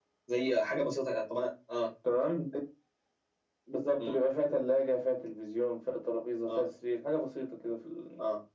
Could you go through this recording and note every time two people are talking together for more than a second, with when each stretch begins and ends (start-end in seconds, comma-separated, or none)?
none